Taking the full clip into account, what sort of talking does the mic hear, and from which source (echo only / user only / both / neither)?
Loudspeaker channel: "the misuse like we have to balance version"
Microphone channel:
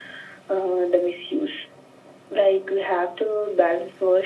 echo only